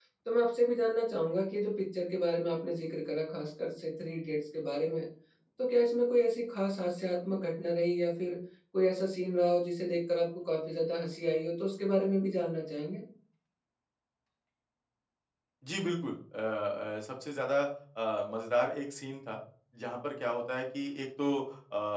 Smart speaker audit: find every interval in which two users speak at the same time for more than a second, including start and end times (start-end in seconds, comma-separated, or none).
none